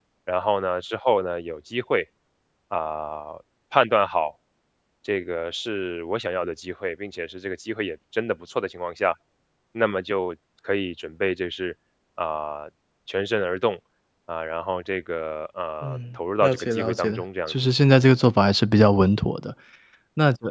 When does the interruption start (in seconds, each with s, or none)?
15.8 s